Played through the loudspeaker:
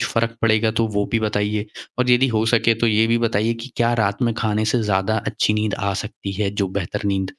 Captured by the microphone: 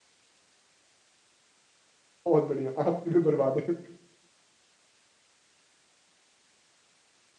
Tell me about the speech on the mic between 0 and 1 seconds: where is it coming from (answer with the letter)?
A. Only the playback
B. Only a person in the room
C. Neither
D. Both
C